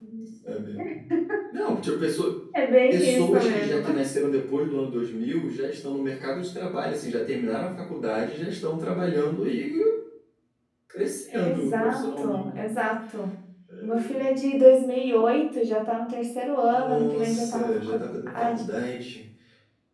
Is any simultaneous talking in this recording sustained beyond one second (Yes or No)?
Yes